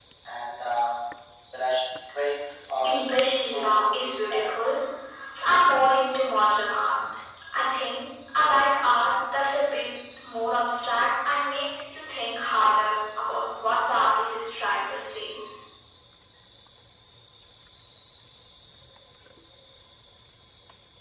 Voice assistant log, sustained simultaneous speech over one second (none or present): present